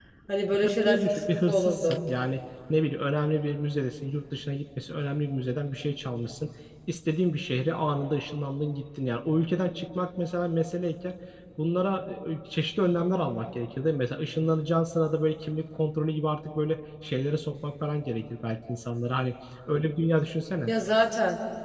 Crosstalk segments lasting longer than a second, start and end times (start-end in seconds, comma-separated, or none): 0.8-2.0